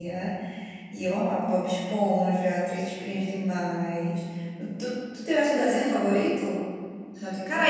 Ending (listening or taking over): taking over